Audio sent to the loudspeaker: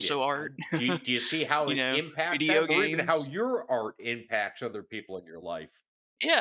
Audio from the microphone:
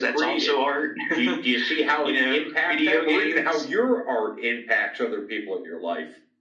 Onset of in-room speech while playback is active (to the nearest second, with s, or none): none